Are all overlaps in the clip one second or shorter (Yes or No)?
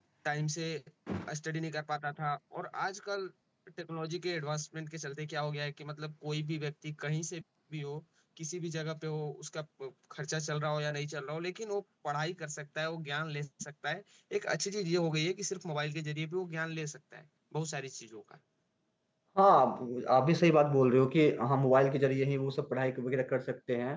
Yes